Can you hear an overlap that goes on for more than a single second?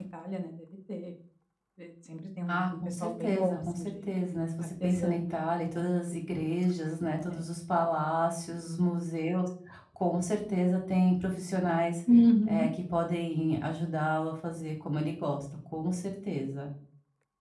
Yes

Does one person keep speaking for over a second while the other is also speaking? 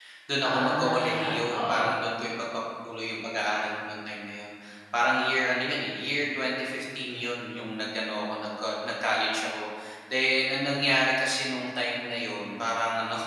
Yes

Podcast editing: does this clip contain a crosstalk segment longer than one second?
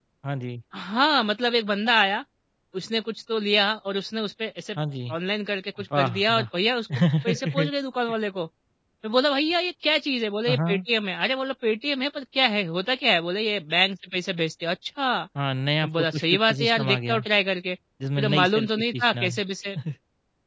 Yes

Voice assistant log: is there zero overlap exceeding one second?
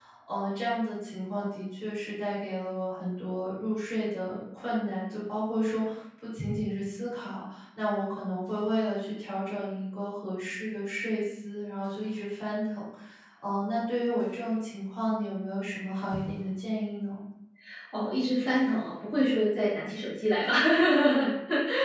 Yes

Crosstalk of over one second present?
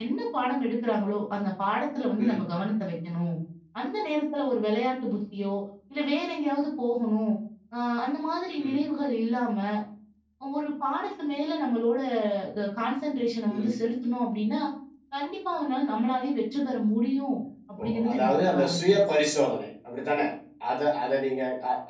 Yes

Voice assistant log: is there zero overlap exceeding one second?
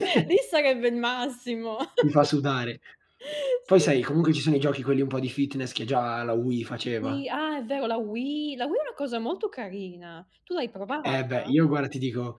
Yes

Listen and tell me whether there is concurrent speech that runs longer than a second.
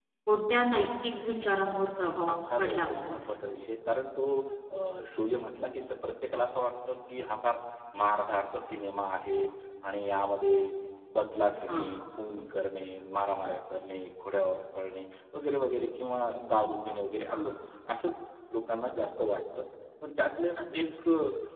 Yes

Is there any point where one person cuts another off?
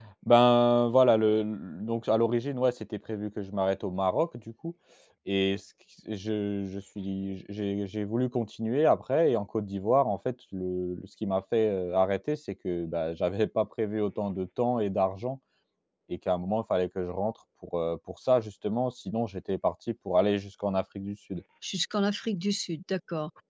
No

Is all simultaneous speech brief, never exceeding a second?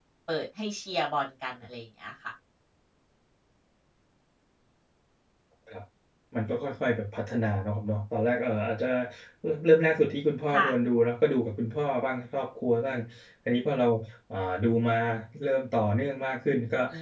Yes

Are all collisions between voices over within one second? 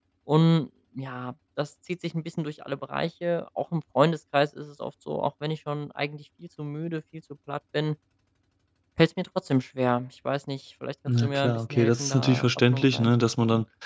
No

